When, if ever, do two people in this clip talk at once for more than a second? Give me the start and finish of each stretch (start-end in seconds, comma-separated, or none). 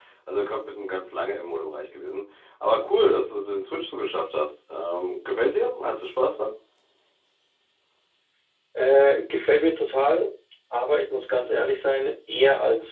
none